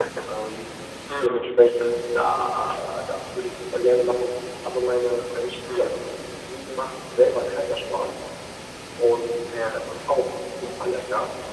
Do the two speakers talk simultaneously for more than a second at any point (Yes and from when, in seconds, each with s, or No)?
No